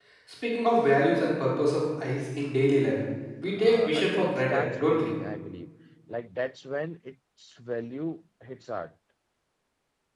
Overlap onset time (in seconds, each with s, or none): 3.6 s